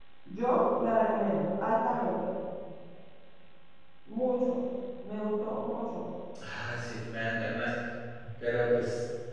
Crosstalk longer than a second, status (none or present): none